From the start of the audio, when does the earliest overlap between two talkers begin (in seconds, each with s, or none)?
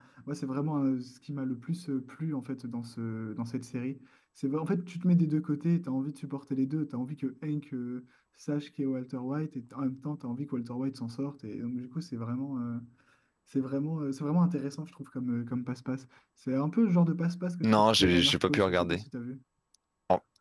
17.6 s